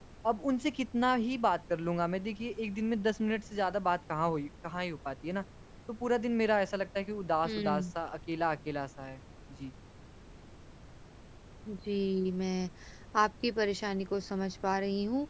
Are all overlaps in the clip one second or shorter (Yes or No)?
Yes